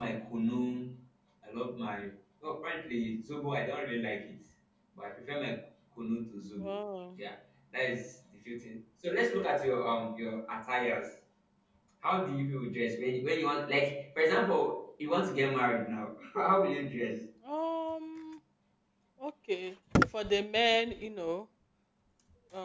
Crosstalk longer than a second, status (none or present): none